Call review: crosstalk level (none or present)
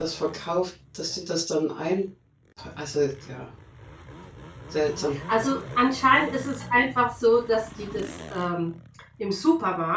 none